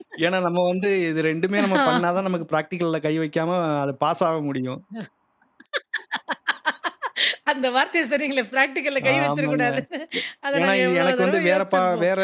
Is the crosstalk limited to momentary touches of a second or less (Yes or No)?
No